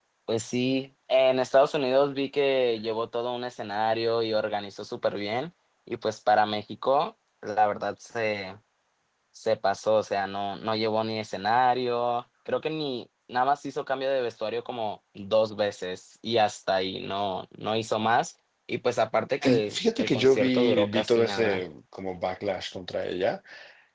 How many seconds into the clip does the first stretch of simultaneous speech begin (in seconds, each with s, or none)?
19.4 s